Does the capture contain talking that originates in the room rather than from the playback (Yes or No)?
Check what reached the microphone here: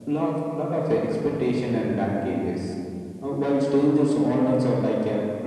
No